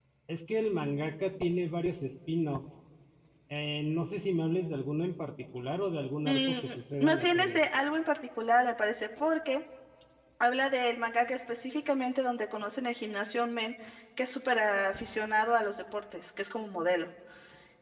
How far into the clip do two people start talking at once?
6.2 s

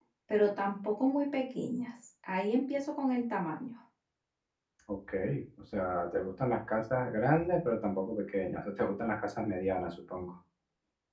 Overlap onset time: none

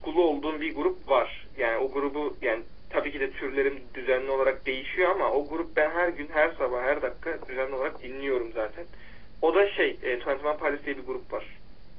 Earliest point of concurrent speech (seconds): none

